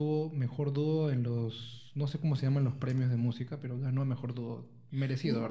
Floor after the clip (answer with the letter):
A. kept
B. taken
B